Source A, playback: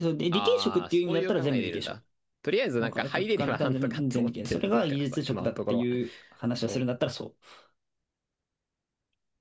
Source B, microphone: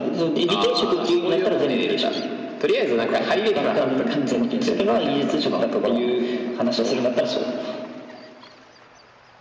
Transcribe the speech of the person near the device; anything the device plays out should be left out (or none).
none